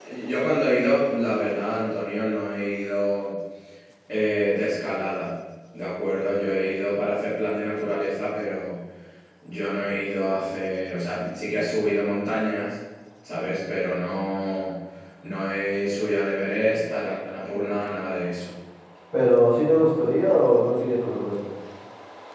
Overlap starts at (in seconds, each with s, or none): none